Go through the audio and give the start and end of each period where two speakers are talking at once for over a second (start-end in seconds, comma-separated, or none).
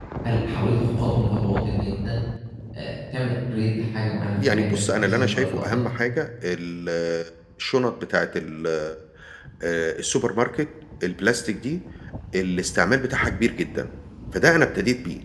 4.5-5.8